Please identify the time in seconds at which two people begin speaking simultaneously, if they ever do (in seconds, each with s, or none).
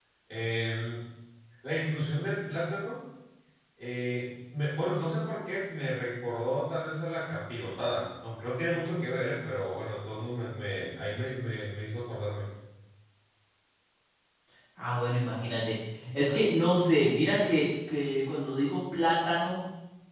none